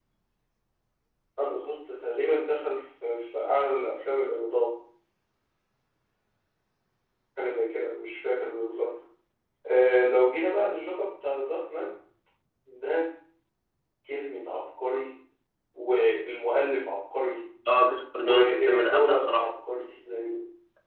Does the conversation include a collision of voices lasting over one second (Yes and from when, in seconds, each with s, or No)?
Yes, from 18.1 s